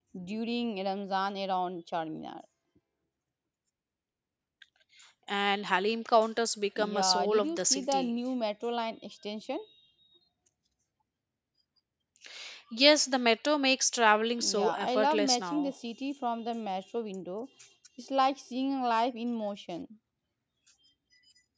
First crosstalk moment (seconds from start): 7 s

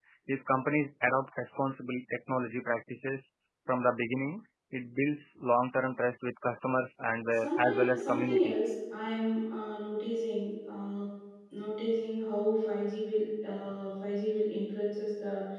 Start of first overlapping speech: 7 s

